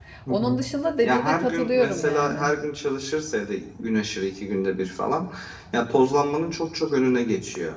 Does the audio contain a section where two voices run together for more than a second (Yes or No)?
Yes